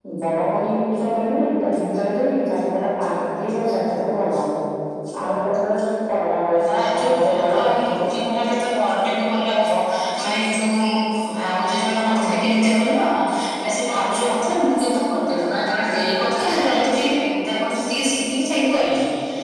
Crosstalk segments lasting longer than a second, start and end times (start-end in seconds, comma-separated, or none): 6.7-8.0